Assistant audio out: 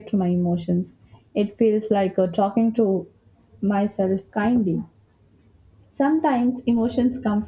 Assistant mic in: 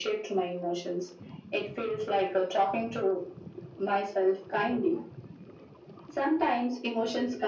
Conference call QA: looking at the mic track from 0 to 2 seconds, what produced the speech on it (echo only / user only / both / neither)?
echo only